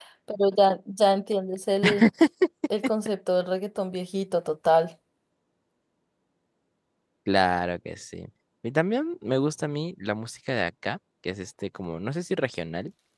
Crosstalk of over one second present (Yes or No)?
No